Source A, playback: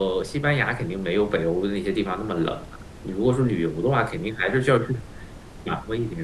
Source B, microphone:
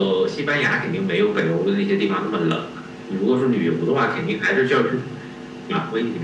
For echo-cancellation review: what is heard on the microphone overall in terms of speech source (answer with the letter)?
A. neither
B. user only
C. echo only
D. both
C